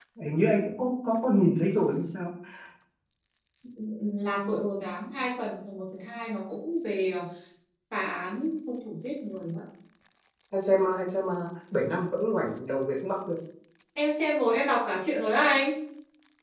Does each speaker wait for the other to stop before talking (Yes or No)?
Yes